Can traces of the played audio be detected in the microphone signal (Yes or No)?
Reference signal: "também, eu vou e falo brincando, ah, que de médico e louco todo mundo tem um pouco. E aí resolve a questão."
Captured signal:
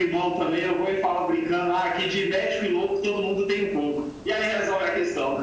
Yes